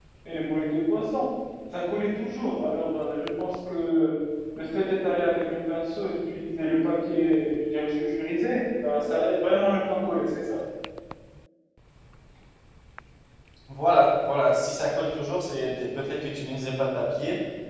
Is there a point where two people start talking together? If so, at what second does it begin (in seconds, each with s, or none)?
none